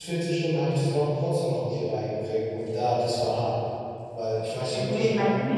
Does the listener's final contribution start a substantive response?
Yes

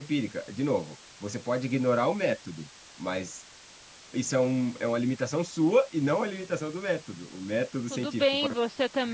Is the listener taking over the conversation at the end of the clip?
Yes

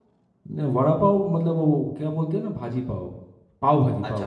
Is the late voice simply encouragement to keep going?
No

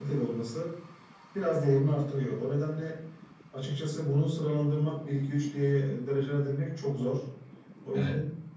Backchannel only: No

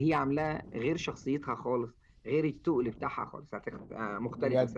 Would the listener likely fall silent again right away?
No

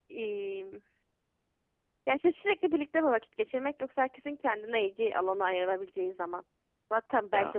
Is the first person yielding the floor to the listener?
No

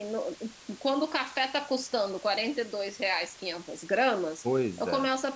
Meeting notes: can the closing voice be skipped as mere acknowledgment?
Yes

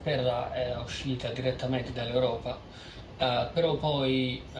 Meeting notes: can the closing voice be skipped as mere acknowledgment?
Yes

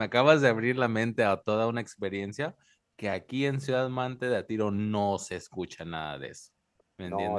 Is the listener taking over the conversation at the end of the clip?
Yes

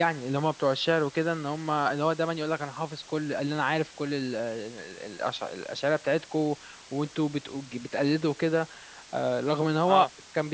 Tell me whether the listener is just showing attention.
Yes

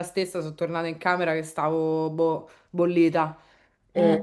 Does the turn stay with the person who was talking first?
Yes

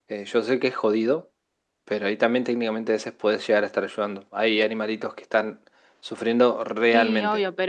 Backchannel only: No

